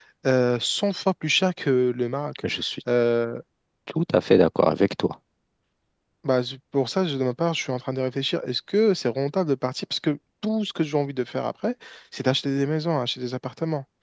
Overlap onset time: none

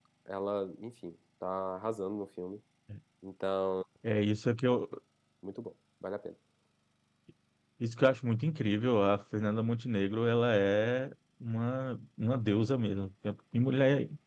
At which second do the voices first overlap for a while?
none

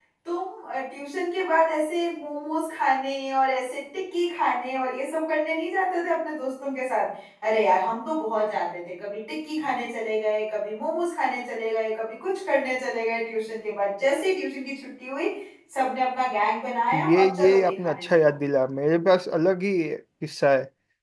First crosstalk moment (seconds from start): 16.9 s

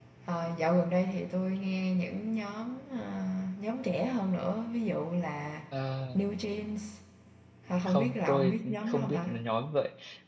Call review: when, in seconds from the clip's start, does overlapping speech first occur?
7.9 s

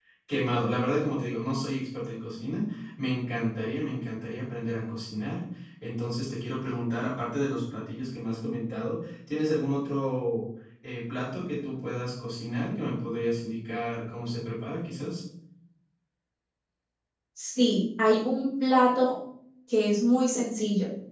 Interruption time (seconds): none

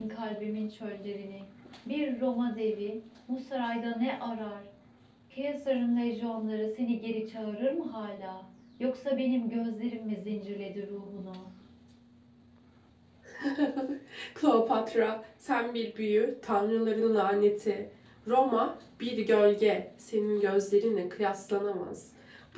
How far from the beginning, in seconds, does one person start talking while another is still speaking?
none

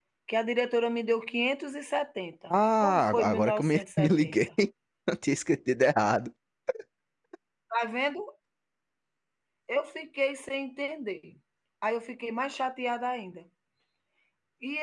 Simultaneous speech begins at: 2.5 s

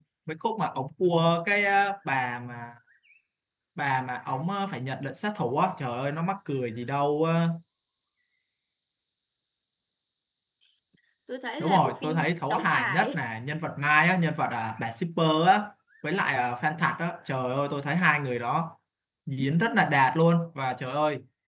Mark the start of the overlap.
11.6 s

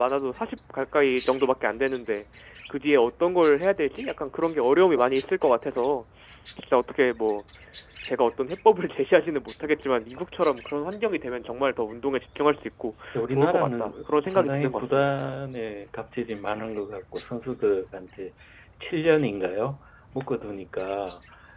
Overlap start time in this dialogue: 13.2 s

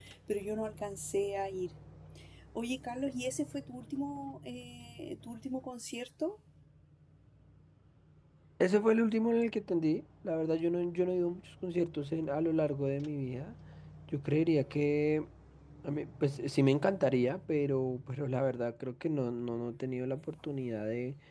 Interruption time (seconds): none

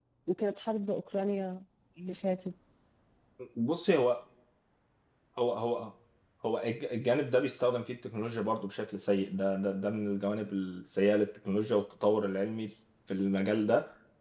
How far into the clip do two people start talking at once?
none

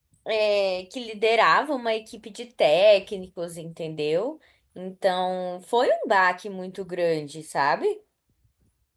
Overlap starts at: none

